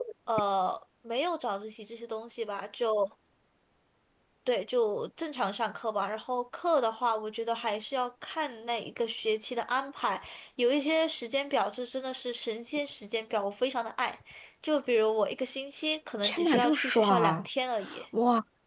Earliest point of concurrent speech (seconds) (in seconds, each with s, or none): 16.2 s